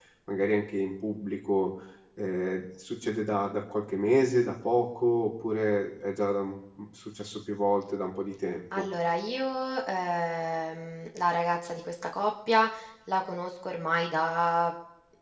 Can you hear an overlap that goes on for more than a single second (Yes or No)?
No